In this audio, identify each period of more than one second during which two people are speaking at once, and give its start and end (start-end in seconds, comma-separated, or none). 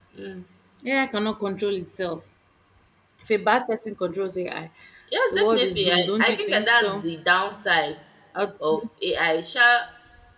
5.3-7.1